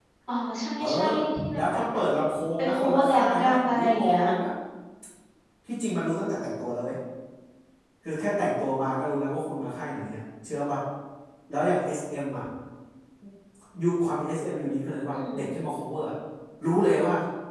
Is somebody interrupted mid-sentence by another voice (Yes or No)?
Yes